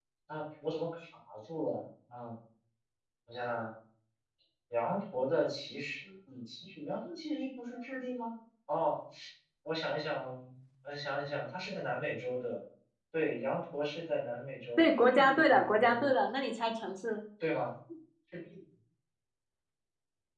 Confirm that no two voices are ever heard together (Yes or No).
No